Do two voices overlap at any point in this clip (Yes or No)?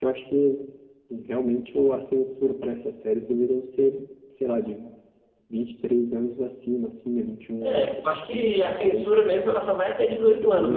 Yes